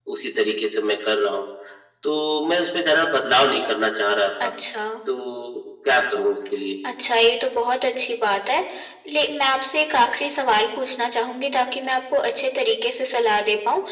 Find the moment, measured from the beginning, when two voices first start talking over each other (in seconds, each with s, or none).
none